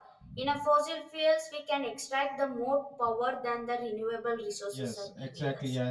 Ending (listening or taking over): taking over